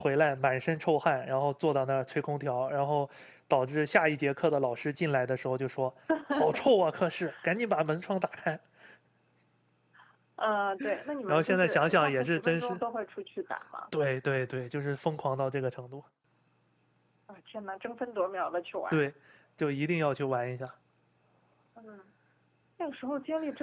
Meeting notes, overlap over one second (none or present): present